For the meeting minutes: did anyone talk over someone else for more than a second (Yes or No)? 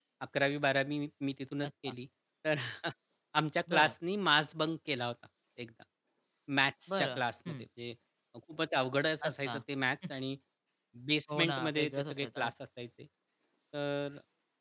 Yes